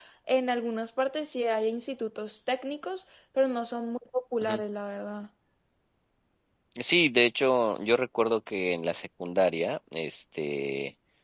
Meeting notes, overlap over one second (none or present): none